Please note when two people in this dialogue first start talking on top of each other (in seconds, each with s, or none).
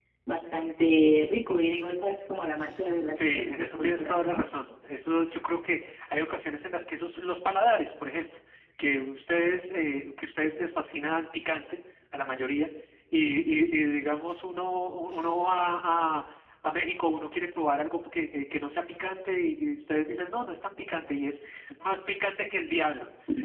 3.1 s